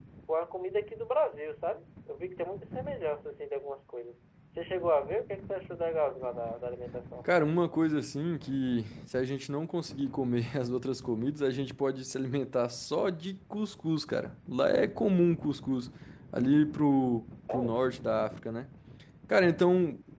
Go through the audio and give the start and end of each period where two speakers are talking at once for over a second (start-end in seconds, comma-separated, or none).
none